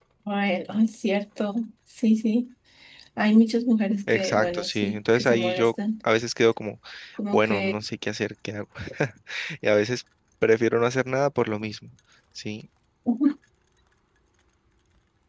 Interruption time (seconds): 4.1 s

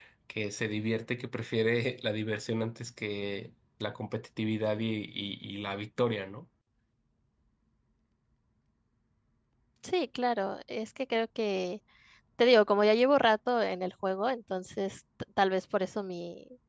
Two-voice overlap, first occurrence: none

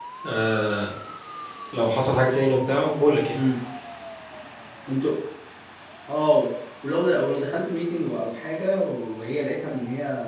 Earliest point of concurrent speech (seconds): none

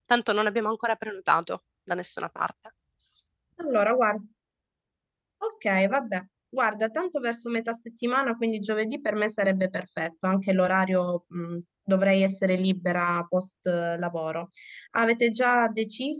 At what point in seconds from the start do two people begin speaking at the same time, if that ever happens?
none

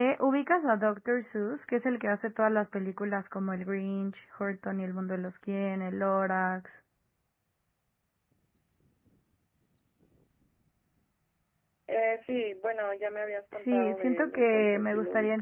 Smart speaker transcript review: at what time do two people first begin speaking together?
13.7 s

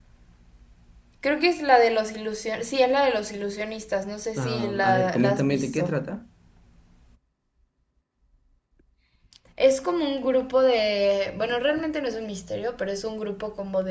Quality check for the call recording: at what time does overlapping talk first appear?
4.4 s

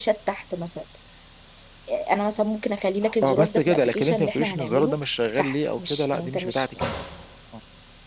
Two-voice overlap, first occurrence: 3.2 s

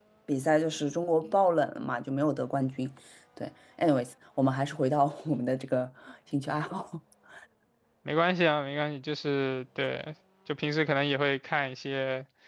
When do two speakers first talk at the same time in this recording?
none

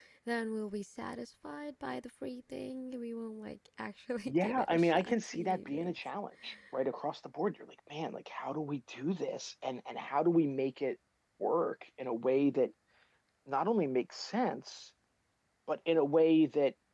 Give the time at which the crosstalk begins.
4.3 s

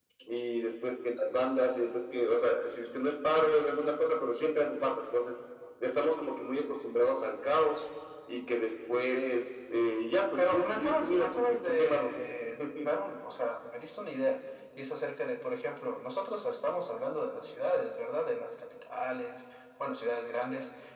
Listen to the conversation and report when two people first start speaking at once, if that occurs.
10.4 s

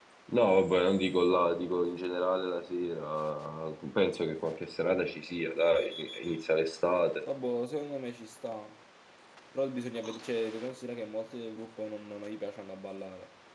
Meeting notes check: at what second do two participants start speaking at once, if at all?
none

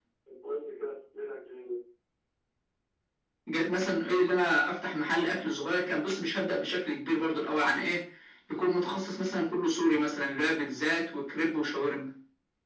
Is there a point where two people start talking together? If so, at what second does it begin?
none

